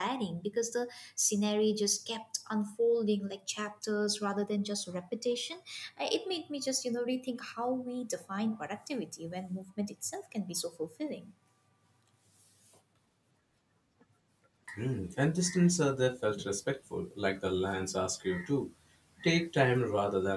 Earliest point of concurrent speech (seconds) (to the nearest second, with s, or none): none